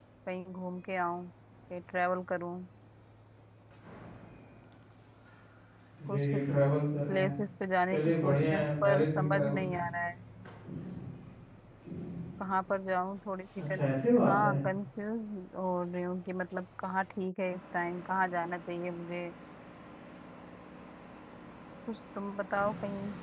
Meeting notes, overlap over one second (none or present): present